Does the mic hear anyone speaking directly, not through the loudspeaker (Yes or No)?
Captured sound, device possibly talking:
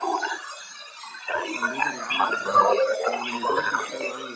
Yes